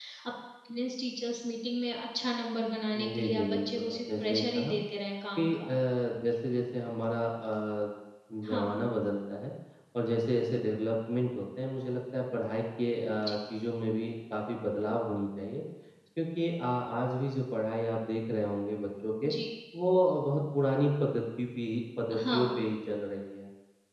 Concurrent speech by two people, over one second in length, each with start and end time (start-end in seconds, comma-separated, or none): 3.0-4.7